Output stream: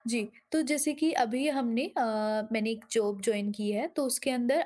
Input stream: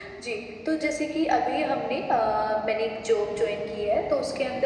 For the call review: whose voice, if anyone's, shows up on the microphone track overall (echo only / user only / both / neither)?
echo only